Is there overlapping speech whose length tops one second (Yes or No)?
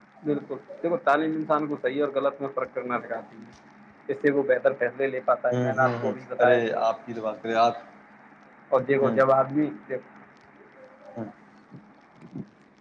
Yes